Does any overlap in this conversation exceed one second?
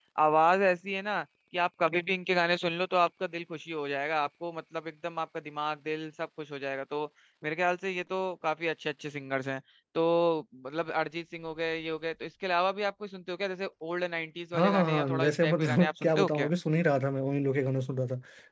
Yes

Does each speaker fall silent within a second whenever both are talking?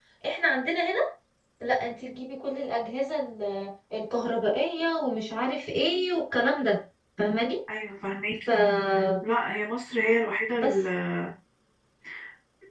Yes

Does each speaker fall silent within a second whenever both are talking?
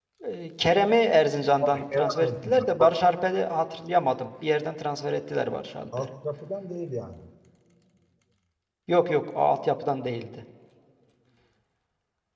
No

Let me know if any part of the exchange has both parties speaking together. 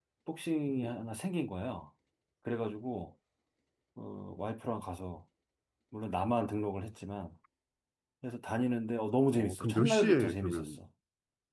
Yes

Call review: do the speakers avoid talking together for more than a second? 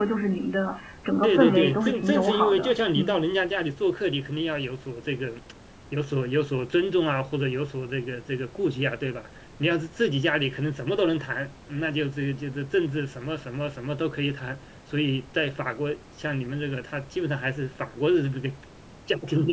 No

